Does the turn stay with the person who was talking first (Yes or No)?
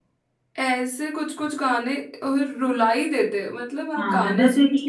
No